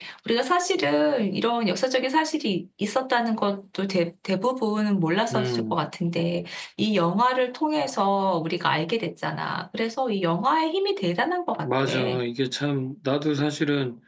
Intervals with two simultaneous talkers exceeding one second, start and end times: none

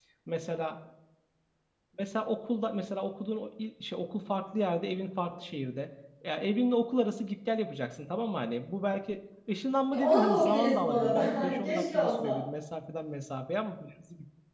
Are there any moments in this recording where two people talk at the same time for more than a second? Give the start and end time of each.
9.9-12.4

